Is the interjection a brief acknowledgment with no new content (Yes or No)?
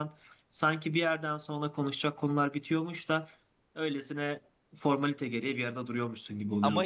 No